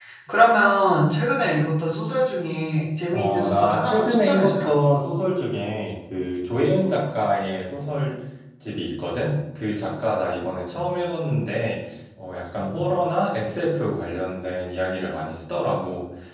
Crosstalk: present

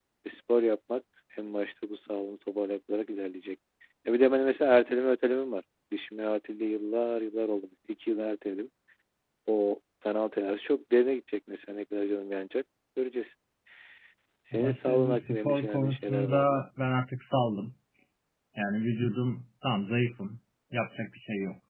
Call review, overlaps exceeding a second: present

